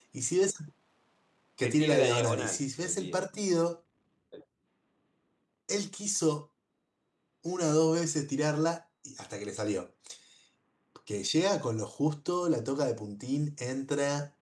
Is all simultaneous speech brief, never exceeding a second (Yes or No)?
No